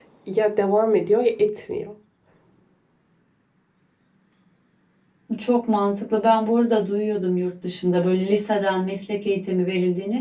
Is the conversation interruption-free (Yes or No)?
Yes